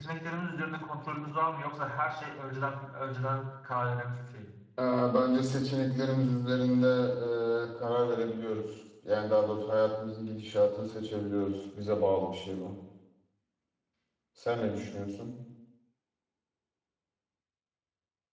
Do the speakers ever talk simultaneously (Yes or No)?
No